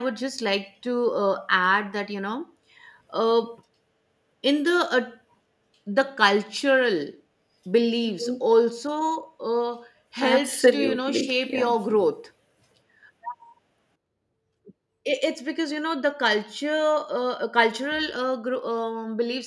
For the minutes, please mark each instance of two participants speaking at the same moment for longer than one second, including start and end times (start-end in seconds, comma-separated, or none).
10.2-11.8